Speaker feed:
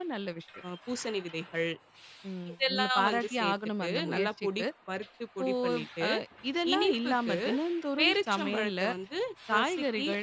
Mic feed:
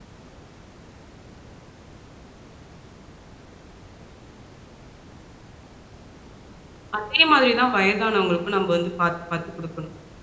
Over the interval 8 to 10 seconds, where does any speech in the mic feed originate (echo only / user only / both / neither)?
user only